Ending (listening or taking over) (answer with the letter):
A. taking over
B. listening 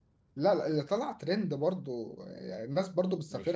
A